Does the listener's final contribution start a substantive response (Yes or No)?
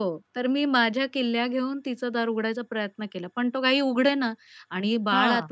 No